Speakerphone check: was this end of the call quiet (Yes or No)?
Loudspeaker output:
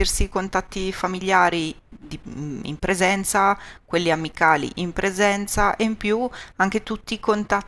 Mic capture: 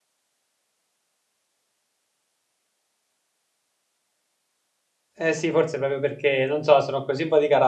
No